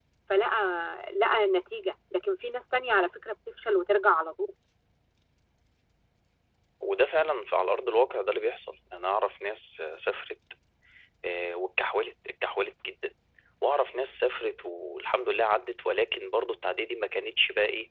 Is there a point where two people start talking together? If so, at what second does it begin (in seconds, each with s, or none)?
none